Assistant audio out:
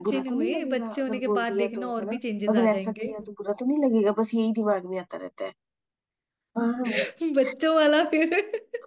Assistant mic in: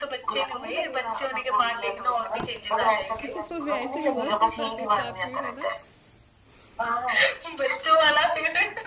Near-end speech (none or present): present